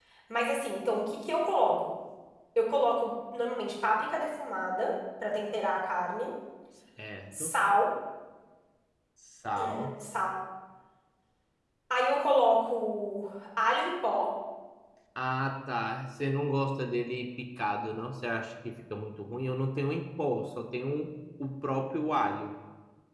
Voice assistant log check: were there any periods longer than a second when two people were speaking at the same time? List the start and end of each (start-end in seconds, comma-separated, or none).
none